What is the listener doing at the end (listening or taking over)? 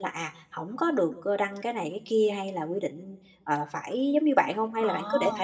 taking over